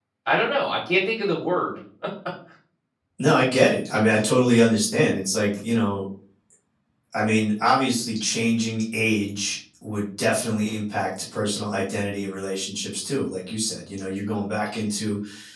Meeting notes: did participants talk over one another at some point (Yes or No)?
No